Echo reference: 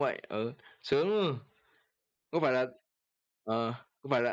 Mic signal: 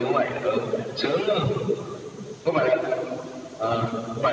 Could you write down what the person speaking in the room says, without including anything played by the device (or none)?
none